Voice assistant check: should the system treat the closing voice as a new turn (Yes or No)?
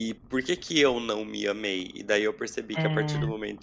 No